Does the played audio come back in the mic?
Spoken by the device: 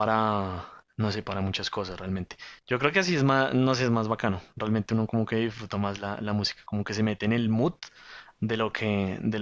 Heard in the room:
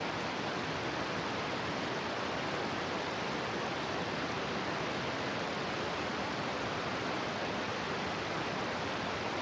No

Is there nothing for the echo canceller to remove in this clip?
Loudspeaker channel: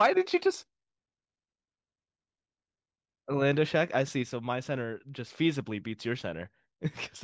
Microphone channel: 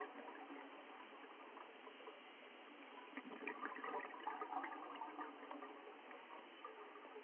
Yes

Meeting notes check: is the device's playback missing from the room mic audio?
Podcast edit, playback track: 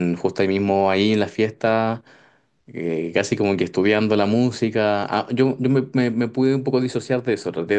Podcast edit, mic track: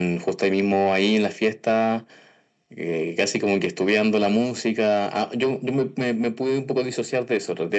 No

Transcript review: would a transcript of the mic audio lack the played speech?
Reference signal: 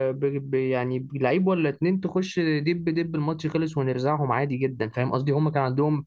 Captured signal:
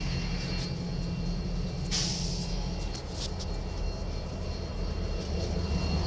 Yes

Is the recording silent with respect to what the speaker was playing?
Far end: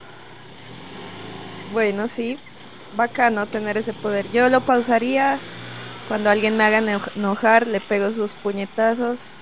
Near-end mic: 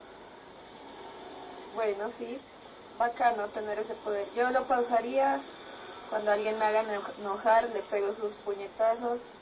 No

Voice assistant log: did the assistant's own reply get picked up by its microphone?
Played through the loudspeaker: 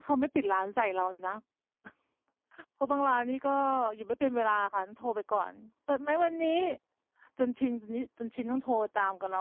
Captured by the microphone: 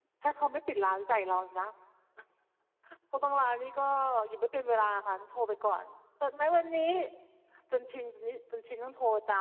Yes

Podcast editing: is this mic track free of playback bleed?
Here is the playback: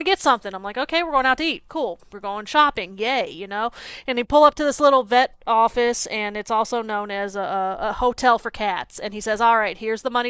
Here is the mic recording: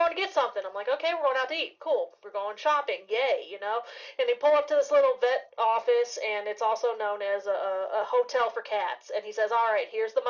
No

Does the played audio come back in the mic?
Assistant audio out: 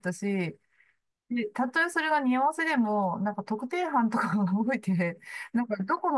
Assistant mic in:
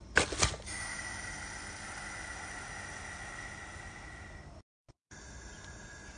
No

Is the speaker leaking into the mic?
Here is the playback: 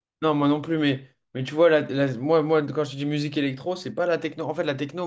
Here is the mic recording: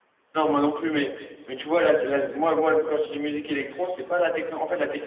Yes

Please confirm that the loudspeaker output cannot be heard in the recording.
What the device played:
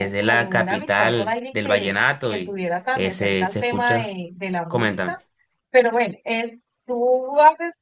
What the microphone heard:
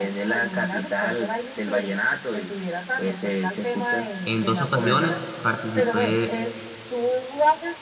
No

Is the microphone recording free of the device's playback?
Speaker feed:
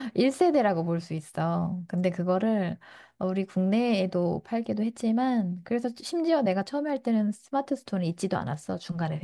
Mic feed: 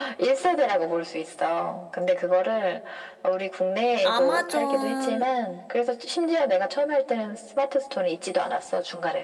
No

